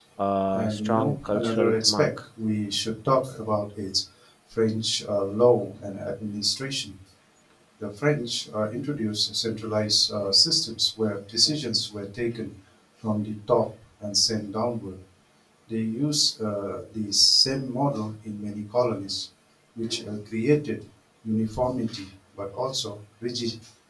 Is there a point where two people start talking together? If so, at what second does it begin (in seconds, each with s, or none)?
0.5 s